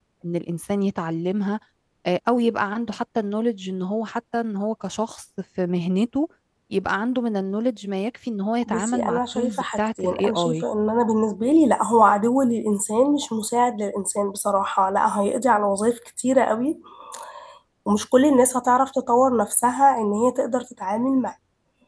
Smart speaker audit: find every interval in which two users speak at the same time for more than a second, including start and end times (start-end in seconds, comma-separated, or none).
8.7-10.6